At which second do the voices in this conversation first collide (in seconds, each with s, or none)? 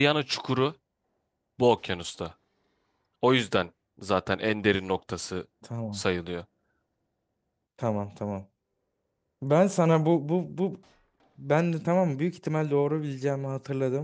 none